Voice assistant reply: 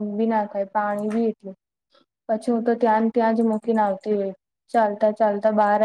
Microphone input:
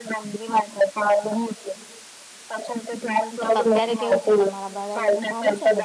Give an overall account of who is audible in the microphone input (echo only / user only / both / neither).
both